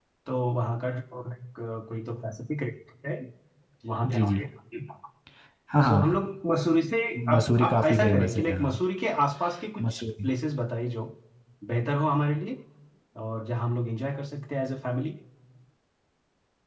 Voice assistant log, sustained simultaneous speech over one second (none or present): present